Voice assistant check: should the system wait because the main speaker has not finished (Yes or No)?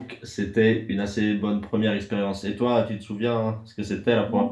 No